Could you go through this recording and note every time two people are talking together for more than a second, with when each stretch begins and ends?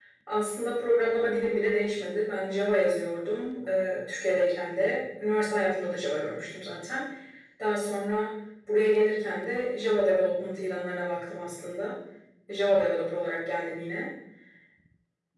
none

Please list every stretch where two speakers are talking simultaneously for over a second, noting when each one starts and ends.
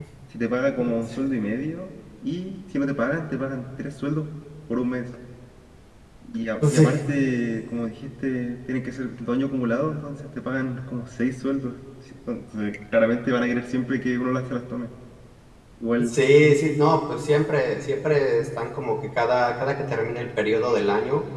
none

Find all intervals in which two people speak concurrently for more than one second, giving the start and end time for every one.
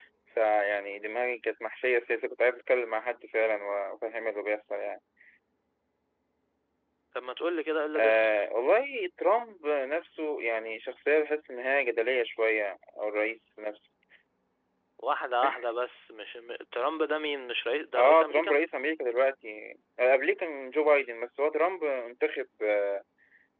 none

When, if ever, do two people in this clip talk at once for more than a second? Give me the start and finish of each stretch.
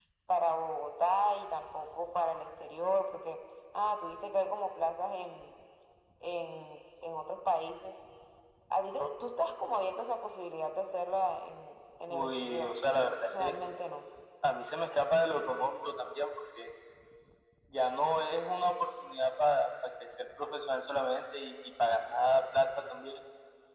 12.1-13.6

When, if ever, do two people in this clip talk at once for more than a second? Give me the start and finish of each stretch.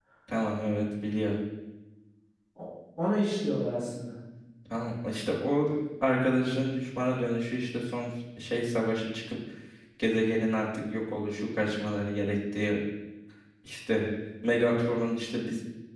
none

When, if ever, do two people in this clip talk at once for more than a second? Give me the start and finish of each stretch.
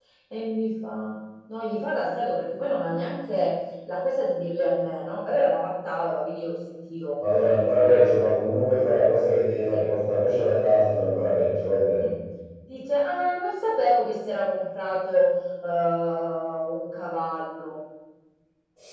none

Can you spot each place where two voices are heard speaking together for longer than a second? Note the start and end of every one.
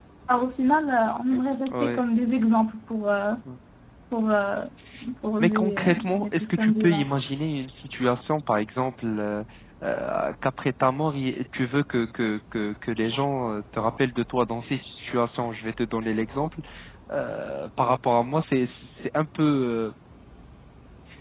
5.4-7.0

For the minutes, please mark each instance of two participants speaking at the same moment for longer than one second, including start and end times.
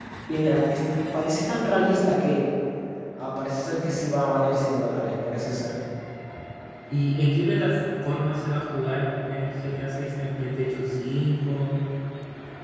none

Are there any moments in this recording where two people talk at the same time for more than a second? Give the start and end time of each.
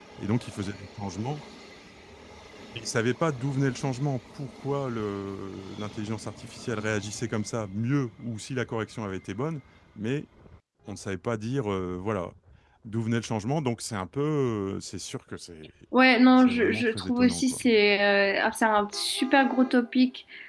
16.4-17.6

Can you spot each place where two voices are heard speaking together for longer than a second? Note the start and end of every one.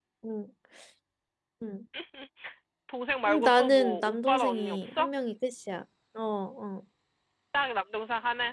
3.3-5.1

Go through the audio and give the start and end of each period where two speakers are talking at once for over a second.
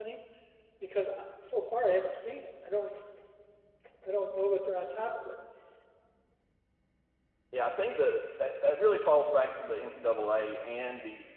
none

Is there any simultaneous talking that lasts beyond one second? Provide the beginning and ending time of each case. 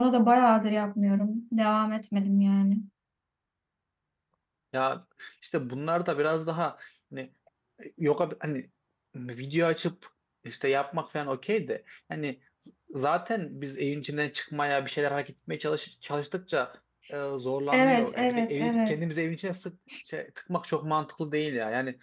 17.7-19.0

